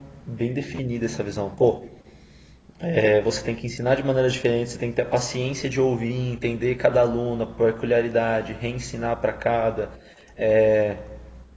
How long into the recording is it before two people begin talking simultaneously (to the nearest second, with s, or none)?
none